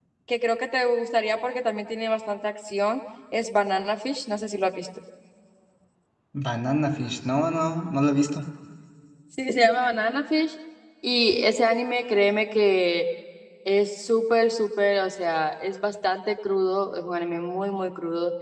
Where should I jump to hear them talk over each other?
none

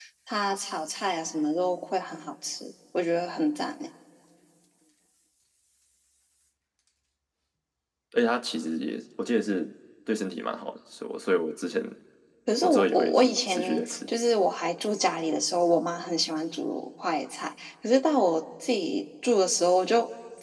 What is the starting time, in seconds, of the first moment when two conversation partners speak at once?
12.6 s

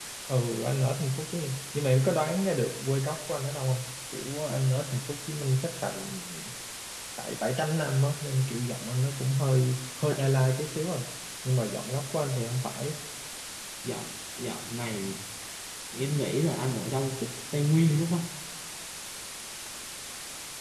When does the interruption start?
none

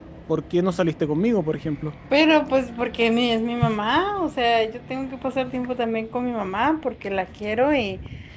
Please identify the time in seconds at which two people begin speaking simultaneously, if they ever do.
none

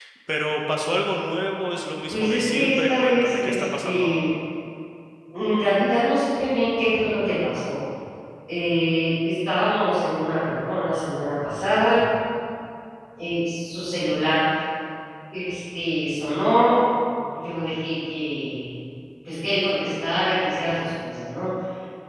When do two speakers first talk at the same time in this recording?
2.1 s

